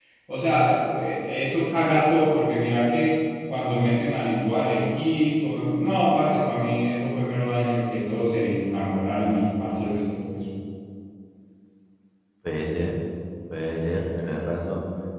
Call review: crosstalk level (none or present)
none